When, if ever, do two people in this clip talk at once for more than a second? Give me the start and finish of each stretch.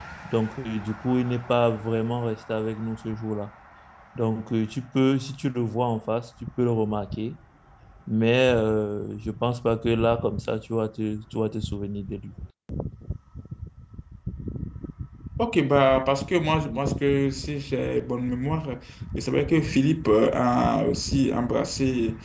none

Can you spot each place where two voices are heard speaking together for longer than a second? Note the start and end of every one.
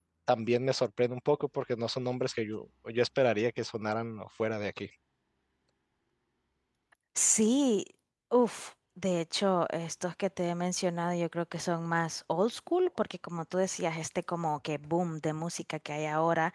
none

